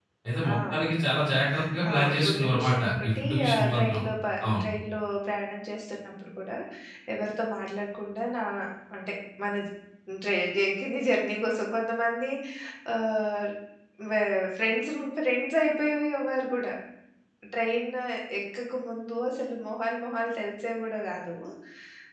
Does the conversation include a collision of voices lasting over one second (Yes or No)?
Yes